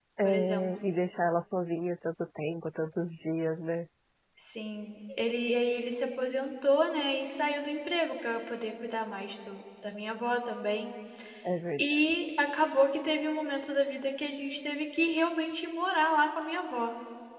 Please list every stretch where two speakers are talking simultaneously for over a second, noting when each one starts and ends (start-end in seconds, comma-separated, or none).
none